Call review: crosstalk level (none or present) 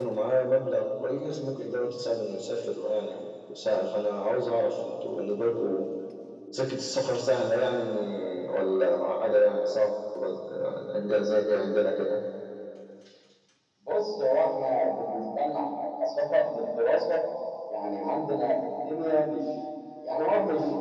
none